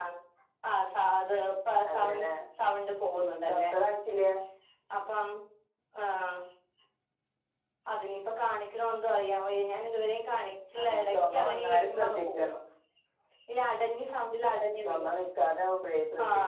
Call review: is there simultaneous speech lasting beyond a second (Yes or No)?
Yes